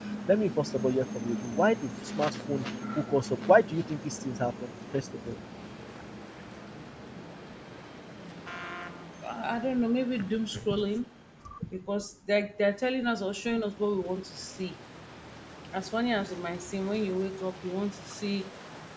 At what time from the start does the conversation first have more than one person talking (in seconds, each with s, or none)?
none